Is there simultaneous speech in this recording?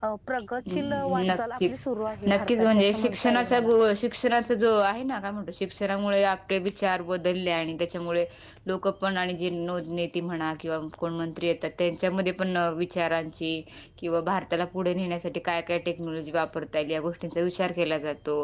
Yes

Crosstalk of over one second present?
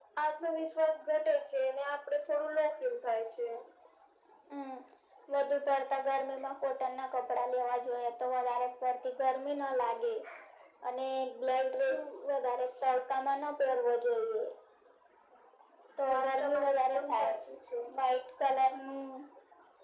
Yes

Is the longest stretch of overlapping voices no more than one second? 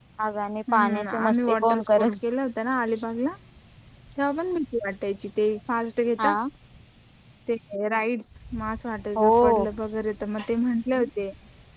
No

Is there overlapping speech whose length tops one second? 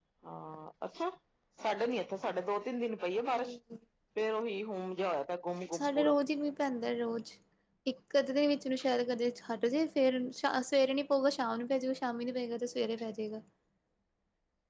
No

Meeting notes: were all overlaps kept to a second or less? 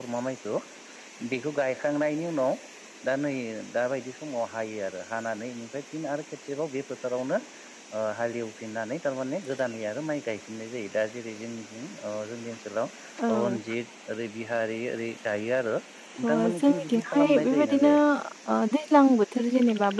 No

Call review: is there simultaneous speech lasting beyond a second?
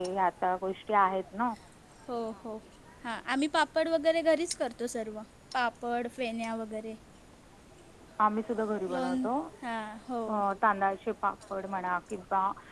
No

